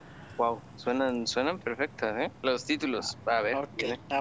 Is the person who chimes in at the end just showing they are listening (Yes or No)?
No